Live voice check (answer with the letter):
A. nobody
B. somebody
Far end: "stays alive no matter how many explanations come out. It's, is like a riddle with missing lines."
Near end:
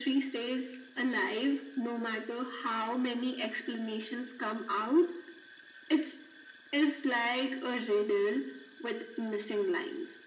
A